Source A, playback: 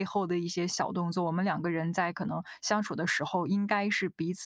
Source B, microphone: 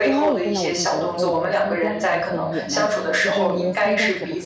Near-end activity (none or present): present